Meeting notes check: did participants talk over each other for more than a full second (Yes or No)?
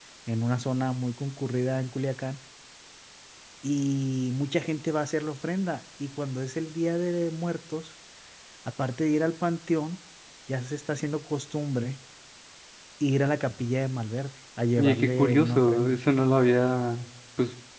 Yes